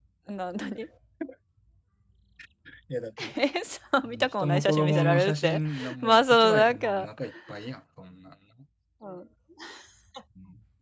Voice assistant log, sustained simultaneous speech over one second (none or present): present